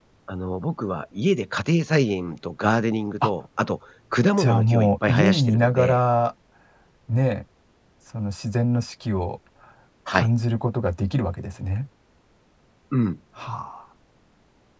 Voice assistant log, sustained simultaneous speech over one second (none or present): present